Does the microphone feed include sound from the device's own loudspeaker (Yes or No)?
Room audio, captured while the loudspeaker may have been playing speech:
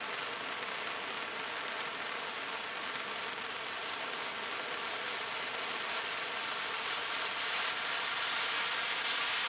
No